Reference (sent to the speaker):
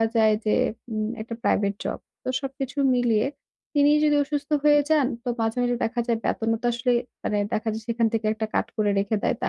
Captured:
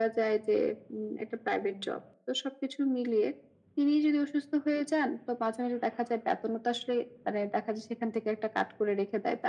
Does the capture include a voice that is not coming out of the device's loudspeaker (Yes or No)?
No